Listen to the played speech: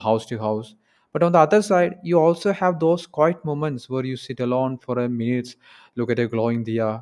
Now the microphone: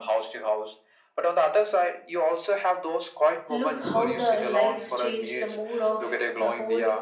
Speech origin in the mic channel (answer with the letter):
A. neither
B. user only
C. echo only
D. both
D